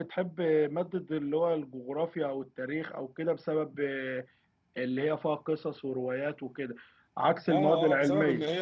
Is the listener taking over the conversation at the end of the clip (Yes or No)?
Yes